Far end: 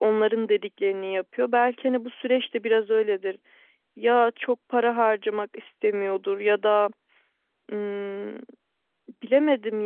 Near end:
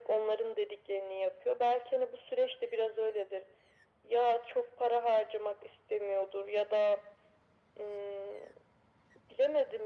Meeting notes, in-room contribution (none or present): none